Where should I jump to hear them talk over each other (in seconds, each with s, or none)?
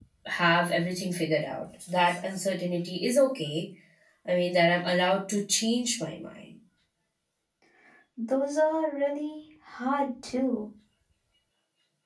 none